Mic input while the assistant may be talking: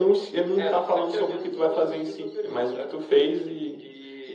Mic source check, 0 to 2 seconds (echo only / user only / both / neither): echo only